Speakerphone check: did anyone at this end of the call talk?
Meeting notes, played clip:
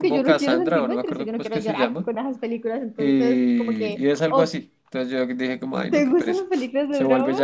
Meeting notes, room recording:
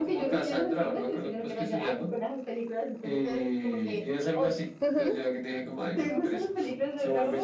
Yes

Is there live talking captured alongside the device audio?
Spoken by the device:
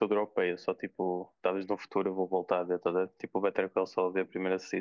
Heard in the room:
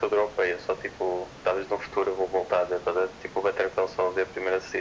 No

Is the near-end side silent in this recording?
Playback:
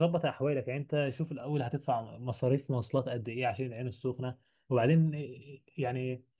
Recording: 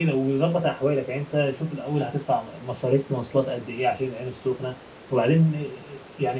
Yes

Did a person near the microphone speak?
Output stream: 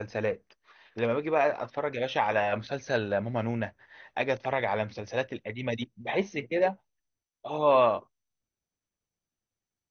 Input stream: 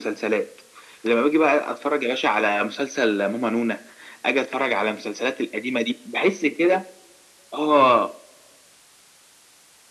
No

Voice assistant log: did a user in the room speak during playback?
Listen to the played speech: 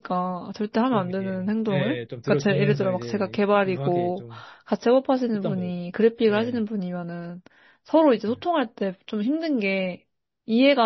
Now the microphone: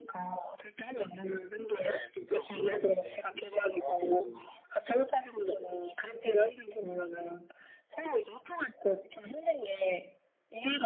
No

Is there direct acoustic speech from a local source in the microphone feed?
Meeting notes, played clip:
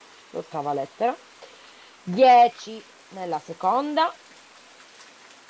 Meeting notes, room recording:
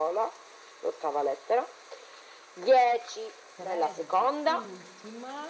Yes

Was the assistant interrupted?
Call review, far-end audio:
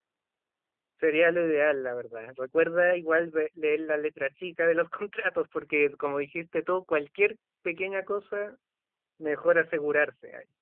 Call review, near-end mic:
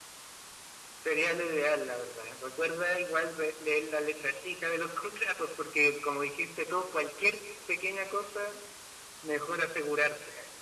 No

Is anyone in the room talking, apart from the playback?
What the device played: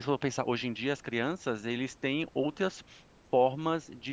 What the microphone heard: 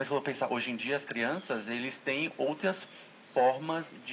No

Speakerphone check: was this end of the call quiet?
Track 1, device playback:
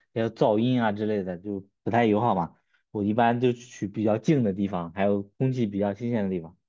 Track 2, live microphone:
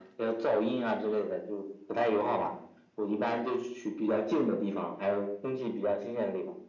Yes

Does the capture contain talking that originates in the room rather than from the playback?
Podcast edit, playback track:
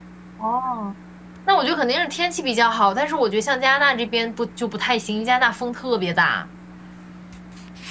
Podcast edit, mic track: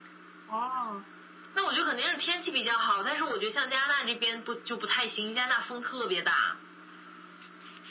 No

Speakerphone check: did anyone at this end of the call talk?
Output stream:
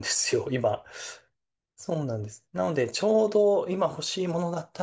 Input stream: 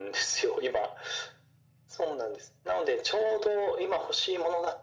No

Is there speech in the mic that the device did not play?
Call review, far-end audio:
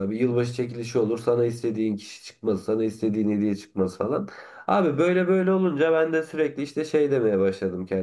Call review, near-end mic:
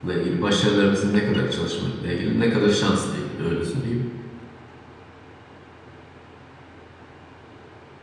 Yes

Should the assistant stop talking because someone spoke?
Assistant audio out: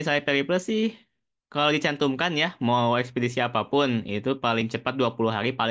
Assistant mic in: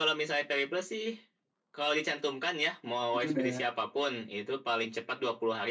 Yes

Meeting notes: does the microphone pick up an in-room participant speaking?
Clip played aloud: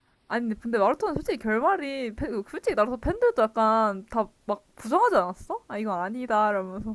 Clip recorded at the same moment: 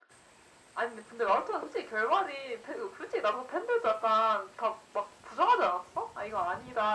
No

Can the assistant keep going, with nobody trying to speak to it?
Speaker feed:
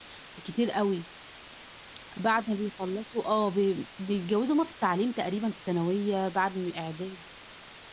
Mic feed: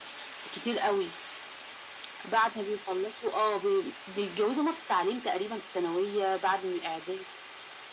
Yes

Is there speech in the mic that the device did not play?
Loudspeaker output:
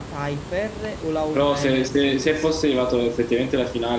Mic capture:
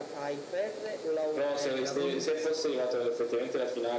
Yes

